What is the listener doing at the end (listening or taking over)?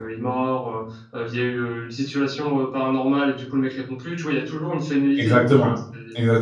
taking over